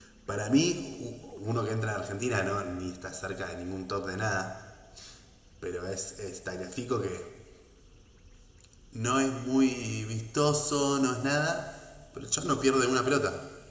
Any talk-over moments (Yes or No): No